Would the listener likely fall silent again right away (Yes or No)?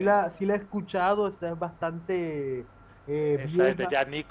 No